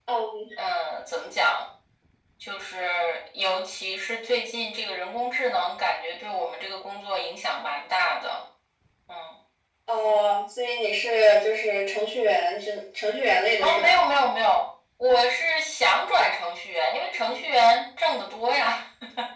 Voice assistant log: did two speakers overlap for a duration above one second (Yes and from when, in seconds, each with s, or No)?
No